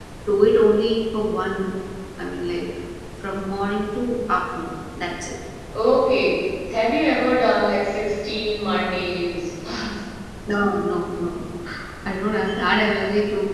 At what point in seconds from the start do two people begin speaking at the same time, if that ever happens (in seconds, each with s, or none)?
none